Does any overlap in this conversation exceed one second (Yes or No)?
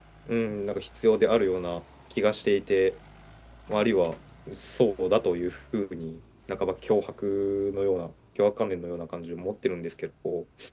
No